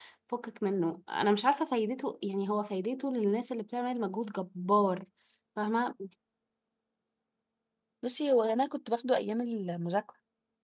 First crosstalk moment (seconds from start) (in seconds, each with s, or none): none